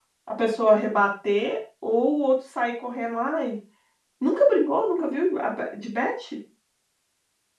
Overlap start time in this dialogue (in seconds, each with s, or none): none